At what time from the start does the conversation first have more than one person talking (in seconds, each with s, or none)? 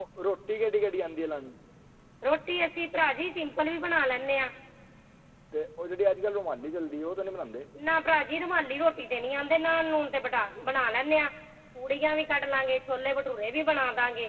none